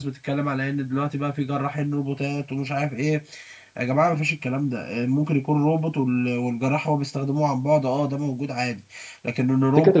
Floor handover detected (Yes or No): Yes